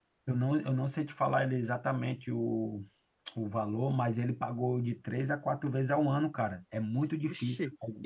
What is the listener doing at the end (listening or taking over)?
taking over